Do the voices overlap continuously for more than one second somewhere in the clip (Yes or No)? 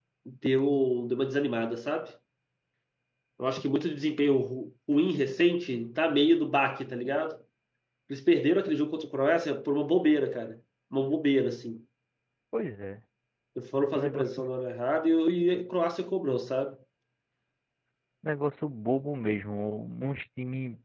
No